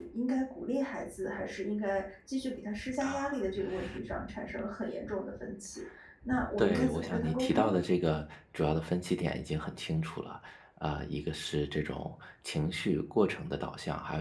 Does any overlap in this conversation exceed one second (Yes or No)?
Yes